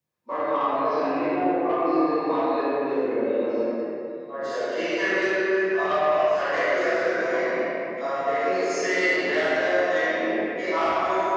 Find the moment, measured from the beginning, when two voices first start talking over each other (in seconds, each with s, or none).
none